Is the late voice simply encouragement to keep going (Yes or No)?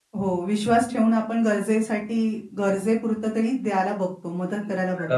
No